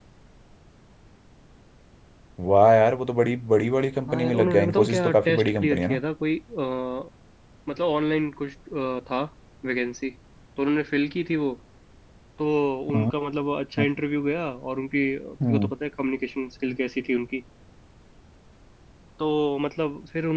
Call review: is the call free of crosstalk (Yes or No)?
No